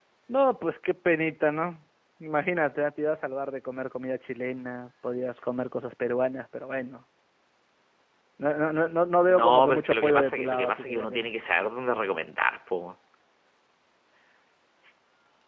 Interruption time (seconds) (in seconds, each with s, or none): 9.3 s